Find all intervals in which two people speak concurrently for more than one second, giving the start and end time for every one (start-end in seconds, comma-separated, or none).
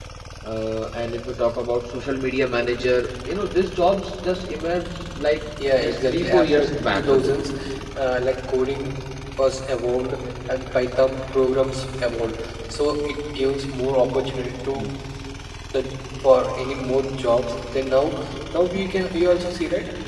5.8-7.4